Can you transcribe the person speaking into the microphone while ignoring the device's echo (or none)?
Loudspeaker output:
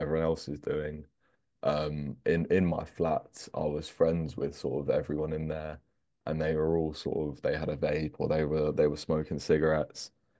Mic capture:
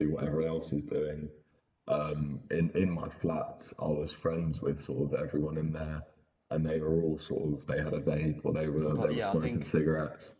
but yeah, I think